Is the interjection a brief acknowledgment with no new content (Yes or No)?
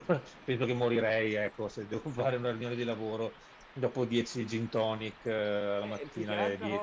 No